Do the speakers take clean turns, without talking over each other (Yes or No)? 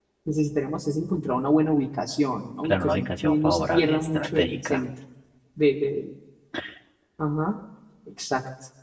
No